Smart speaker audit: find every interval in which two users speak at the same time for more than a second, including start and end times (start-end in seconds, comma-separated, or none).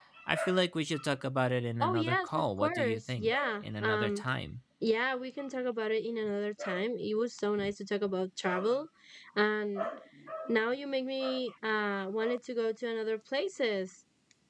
1.8-4.2